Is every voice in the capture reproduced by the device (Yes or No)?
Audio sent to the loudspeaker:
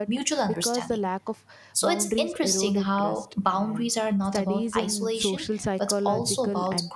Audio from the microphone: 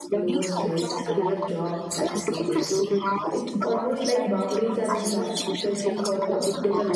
No